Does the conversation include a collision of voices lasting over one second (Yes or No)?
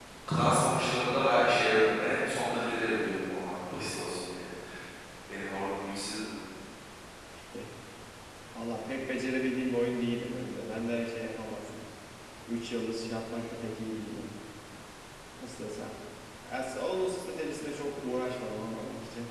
No